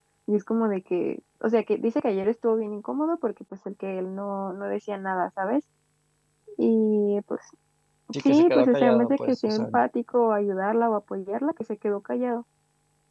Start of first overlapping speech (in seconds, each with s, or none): 8.2 s